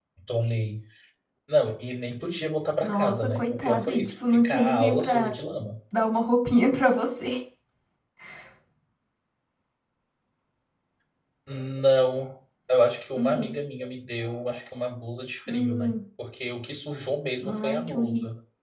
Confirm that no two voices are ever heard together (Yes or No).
No